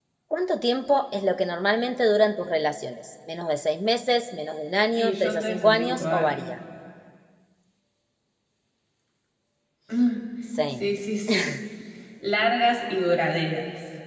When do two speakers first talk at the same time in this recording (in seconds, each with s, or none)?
4.9 s